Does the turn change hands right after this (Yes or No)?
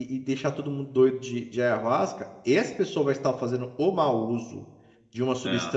No